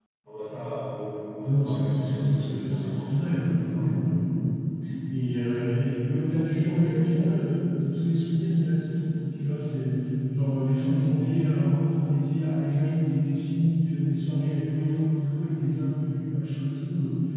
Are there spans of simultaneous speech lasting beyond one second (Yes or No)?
Yes